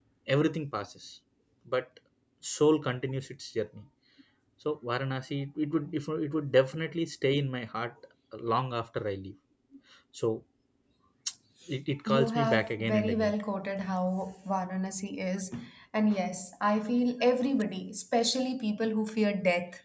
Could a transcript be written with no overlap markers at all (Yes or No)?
No